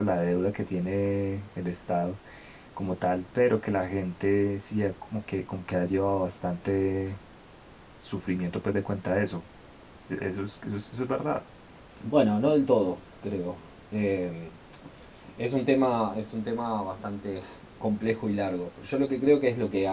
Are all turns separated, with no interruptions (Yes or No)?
Yes